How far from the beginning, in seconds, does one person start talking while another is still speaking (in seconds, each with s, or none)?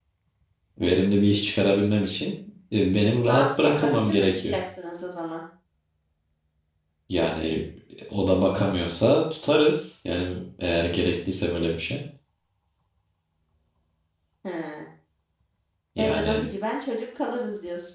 3.3 s